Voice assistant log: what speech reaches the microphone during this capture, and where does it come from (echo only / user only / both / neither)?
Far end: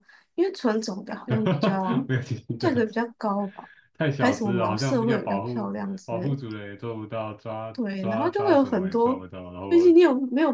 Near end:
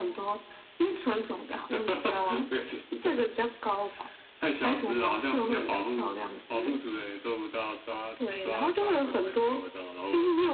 echo only